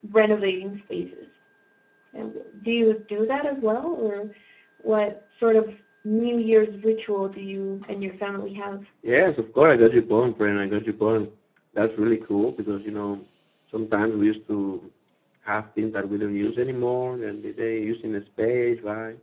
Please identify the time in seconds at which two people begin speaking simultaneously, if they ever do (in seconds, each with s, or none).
none